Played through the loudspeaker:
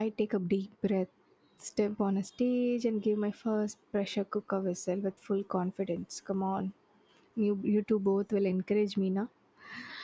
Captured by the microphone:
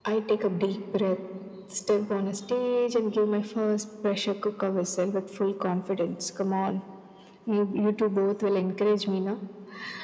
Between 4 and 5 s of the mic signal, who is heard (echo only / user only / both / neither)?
echo only